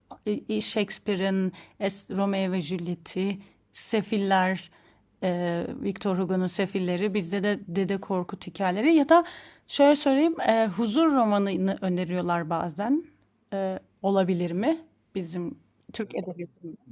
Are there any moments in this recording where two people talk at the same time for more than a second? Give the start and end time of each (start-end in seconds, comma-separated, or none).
none